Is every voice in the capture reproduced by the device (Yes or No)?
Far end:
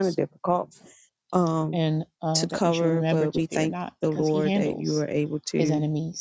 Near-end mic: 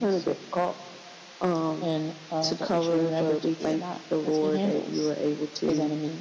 Yes